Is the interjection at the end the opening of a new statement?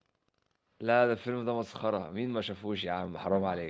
Yes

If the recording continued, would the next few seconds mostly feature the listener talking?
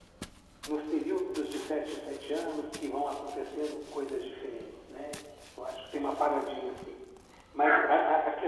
No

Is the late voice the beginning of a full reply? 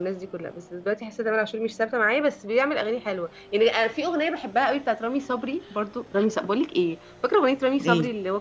No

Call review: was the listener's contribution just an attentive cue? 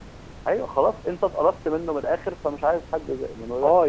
No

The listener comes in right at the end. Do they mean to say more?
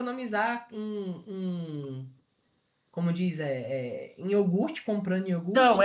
Yes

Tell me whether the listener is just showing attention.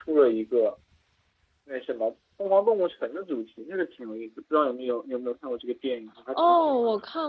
No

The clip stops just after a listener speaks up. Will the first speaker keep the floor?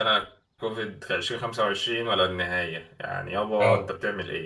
Yes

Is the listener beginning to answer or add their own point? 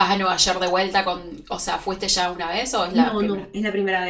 Yes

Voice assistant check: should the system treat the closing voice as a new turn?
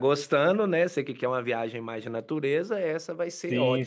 Yes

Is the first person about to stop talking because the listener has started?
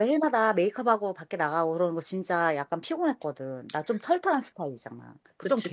Yes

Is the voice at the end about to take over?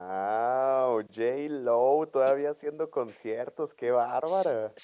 Yes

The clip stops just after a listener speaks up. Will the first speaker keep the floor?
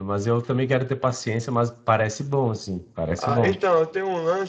No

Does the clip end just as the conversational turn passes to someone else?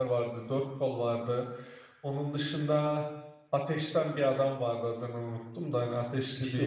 Yes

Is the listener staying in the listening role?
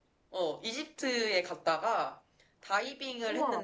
Yes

